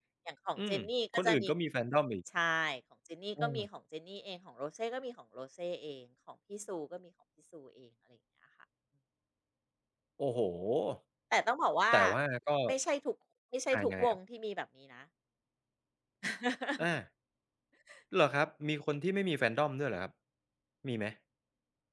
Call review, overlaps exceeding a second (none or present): none